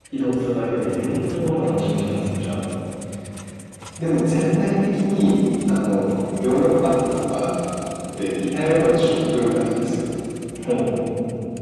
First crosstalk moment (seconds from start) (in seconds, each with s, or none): none